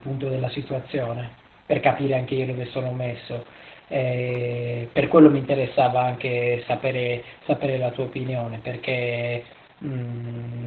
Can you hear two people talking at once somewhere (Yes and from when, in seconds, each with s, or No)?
No